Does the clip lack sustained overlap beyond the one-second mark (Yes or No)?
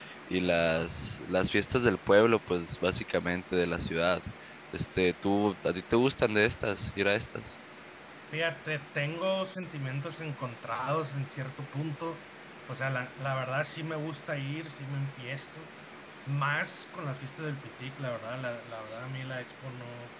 Yes